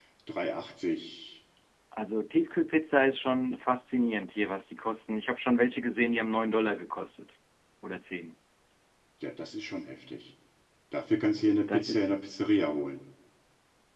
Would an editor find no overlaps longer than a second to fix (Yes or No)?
Yes